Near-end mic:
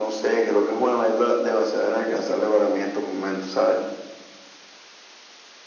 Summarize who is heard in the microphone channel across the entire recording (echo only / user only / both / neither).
echo only